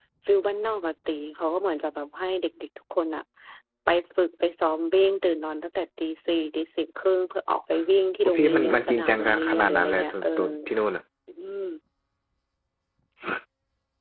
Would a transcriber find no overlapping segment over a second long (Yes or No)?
No